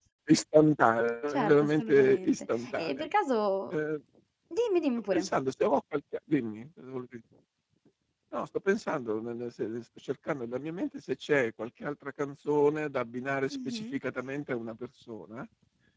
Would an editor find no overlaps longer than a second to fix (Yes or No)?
No